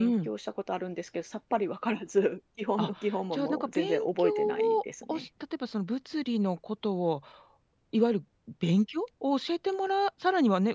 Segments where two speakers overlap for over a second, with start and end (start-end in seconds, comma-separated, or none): 3.3-5.3